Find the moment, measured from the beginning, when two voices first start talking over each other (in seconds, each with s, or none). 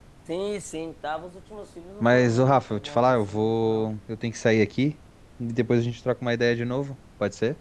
2.0 s